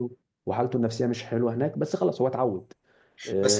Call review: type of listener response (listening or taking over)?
taking over